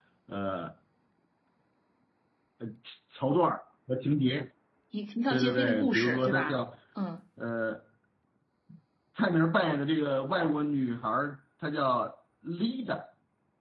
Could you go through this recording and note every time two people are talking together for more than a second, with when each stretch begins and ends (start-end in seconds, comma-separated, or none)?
5.3-6.6